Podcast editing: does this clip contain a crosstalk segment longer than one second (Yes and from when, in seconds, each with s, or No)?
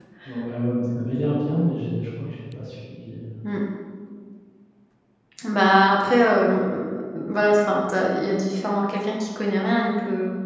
No